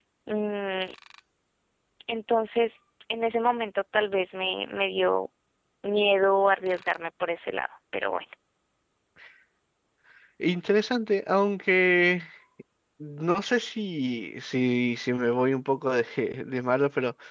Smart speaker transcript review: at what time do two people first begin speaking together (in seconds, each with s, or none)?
none